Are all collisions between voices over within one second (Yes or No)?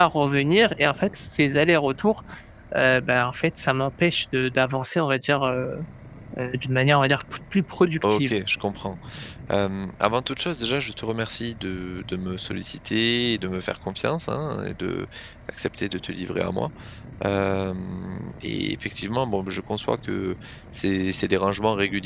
Yes